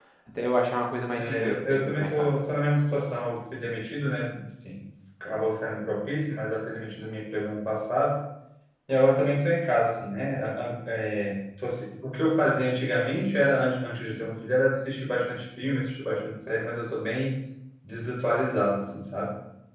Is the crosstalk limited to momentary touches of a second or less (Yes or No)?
No